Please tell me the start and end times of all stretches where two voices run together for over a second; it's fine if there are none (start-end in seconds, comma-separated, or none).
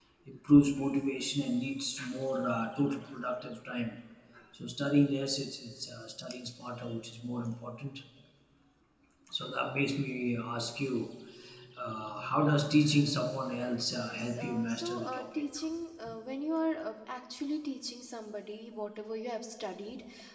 13.9-15.4